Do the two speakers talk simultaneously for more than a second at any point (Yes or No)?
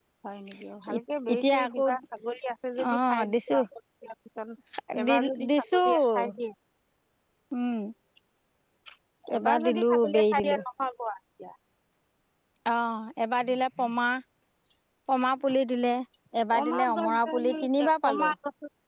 Yes